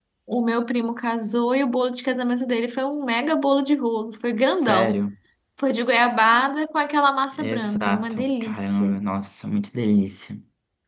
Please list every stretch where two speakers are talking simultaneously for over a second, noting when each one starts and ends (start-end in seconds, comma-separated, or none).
7.4-8.9